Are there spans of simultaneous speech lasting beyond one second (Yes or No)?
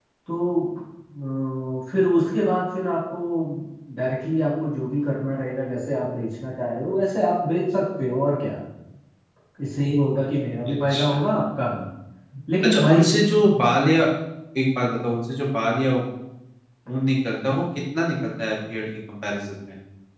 No